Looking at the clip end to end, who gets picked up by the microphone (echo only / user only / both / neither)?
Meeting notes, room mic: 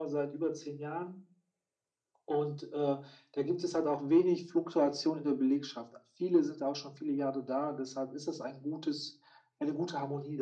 echo only